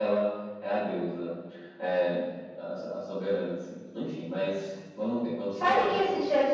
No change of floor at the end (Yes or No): No